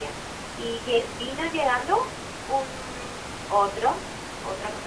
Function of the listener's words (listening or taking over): listening